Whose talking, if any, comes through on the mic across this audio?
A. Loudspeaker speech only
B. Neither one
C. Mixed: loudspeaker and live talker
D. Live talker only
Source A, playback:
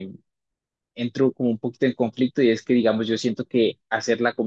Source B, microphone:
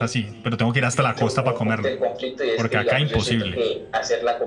C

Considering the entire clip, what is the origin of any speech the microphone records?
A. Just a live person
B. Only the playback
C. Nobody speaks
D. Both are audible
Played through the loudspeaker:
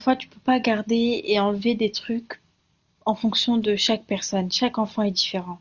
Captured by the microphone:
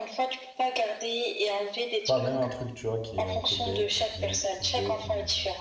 D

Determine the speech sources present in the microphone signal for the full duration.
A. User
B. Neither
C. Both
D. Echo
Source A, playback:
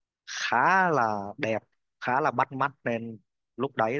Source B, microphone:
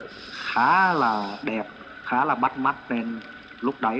D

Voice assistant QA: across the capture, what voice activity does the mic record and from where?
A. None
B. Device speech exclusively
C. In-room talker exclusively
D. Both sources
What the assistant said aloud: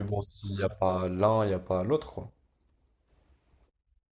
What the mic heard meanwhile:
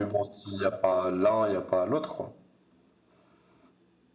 B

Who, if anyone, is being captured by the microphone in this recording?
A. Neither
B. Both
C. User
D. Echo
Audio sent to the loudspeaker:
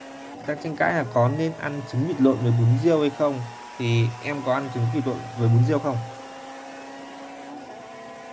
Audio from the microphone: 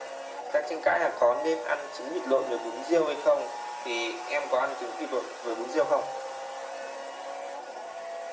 D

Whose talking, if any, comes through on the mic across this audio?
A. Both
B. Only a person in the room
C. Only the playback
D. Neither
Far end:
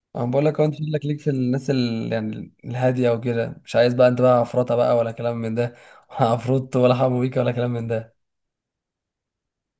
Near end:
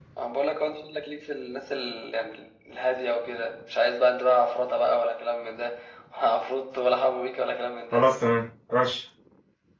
A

